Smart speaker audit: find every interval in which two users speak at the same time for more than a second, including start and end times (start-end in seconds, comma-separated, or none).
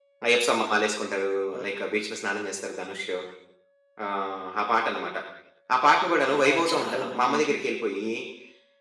6.4-7.7